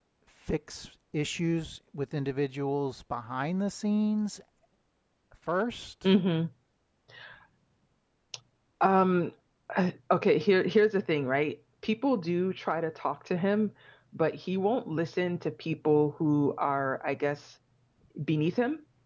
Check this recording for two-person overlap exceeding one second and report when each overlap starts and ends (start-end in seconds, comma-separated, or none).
none